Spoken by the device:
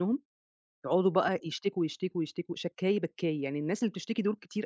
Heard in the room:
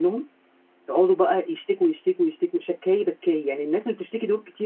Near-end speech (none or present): none